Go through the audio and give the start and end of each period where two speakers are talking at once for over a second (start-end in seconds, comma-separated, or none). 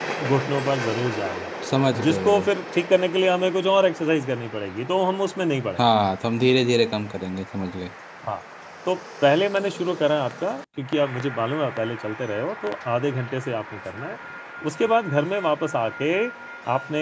none